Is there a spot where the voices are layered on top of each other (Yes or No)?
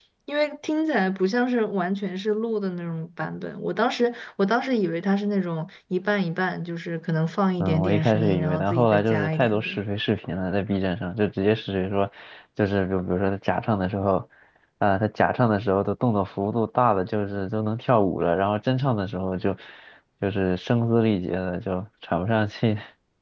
Yes